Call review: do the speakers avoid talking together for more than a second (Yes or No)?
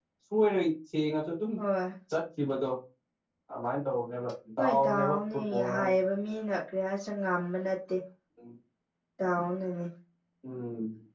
No